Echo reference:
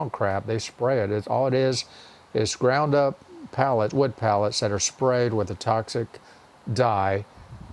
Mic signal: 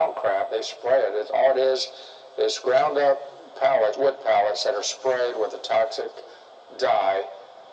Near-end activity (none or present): none